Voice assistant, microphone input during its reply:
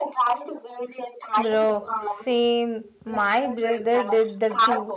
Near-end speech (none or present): present